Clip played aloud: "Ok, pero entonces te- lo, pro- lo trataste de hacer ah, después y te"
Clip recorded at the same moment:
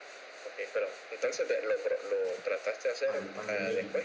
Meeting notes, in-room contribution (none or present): present